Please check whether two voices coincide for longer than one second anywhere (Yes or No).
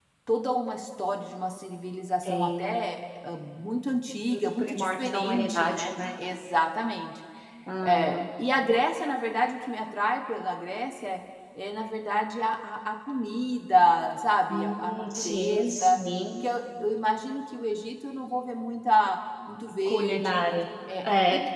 Yes